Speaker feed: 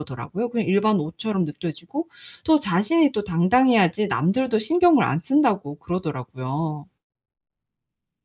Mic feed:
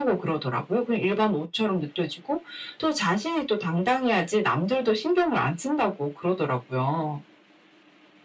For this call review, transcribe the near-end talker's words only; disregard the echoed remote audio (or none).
none